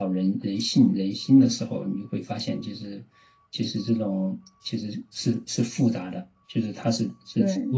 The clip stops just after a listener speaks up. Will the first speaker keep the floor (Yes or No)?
Yes